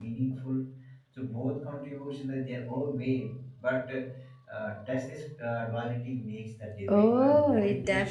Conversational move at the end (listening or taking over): taking over